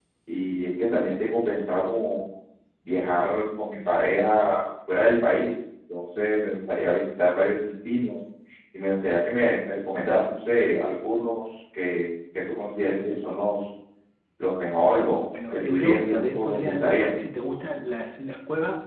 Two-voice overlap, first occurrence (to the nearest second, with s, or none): 16 s